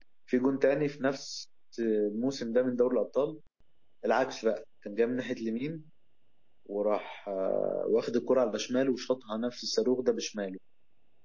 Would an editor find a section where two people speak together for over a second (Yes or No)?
No